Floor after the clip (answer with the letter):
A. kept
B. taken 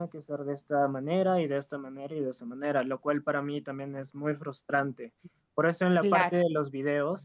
A